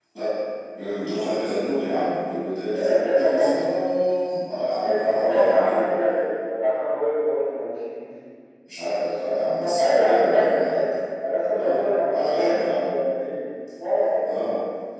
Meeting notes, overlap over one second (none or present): present